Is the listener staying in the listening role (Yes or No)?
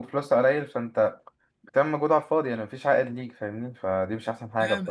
No